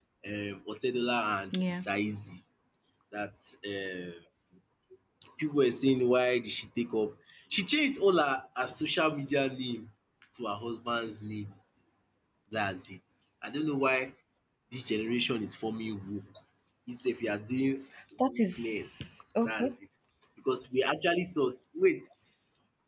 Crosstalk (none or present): present